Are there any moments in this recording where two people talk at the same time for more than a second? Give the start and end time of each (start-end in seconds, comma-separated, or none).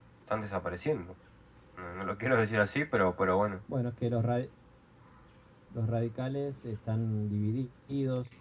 none